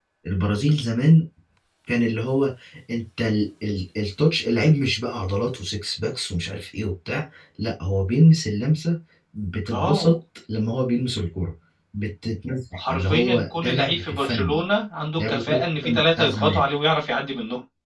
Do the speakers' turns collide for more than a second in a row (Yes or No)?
Yes